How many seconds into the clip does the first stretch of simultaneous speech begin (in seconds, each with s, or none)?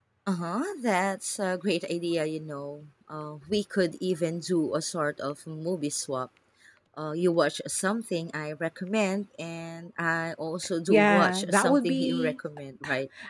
10.9 s